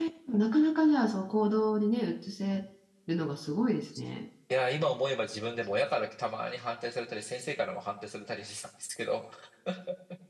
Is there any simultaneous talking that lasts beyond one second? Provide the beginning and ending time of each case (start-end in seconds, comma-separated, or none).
none